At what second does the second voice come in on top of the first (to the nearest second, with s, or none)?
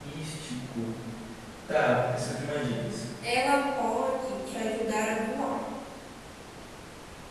none